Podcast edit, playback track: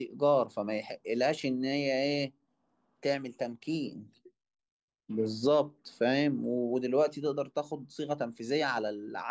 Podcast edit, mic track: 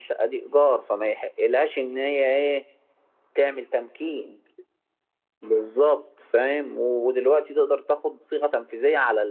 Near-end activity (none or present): none